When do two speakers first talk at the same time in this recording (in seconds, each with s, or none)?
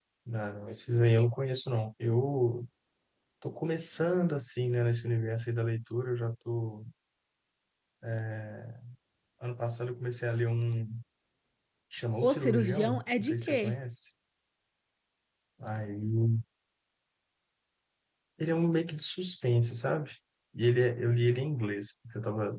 12.2 s